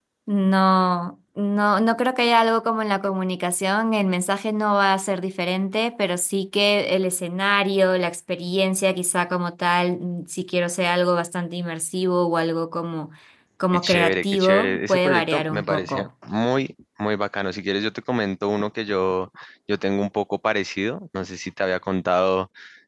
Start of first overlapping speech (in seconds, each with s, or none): 13.7 s